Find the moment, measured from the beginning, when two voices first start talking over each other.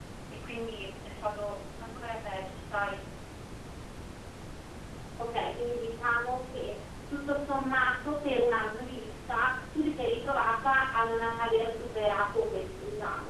none

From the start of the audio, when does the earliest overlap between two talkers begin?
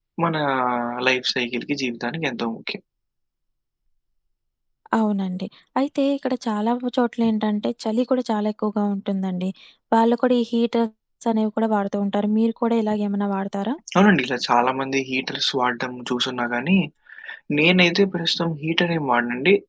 none

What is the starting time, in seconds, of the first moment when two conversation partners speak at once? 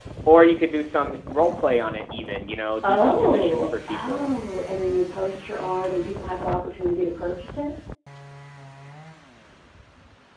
2.8 s

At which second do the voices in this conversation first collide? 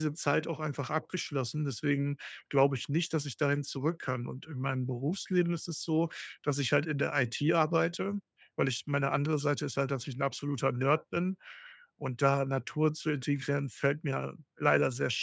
none

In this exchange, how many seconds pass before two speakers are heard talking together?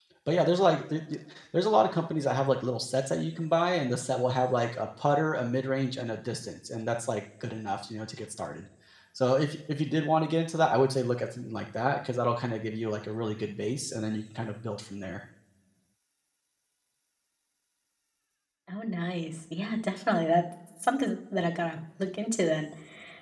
none

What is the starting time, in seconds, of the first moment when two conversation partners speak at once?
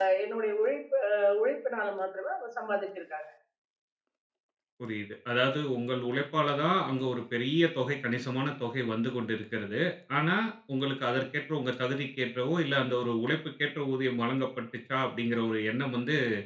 none

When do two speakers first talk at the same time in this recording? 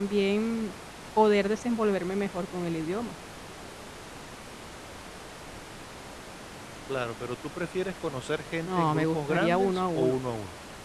8.6 s

